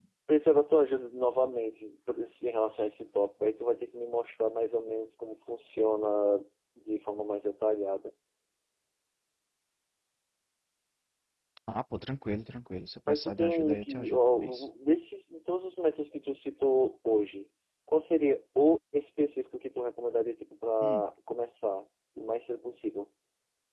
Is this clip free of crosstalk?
No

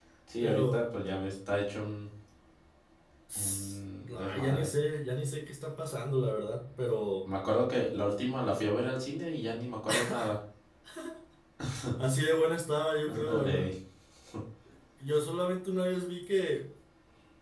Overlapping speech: Yes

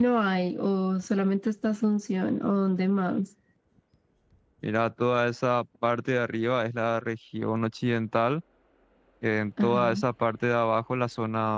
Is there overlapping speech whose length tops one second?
No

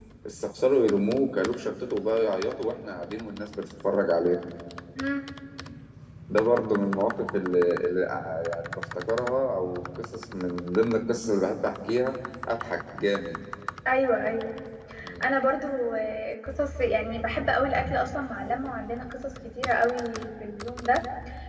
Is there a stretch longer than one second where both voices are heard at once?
No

